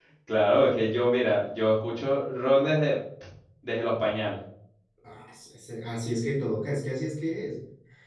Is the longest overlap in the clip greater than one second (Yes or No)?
No